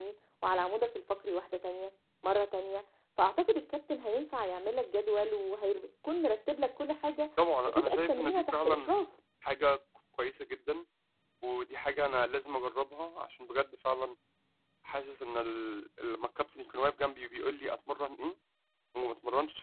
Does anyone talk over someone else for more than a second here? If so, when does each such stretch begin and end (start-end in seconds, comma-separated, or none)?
7.7-8.9